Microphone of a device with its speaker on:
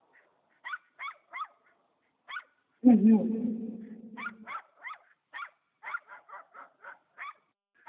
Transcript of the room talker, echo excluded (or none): うんうん。